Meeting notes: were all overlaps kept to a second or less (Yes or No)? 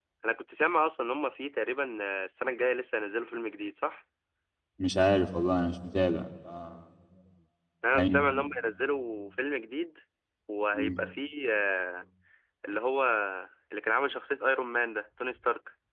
Yes